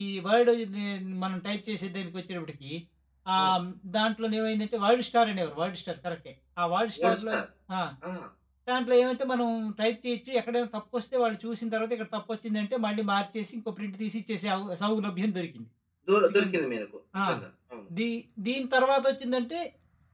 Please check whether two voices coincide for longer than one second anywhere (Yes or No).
No